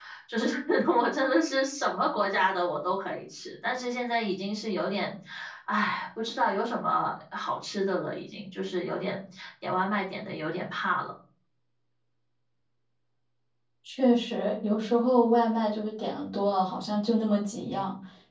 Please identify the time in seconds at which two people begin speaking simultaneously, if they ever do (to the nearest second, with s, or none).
none